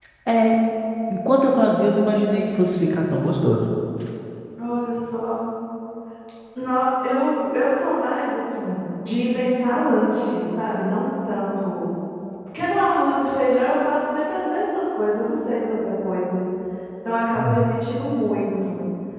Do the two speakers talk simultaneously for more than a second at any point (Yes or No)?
No